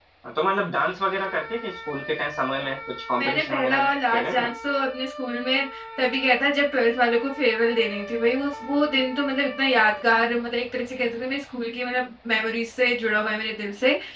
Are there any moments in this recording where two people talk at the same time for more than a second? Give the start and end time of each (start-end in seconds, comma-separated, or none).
3.2-4.5